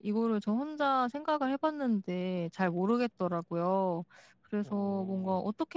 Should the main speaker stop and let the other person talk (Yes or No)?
No